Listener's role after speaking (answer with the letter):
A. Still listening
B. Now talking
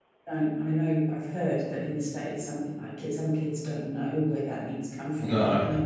A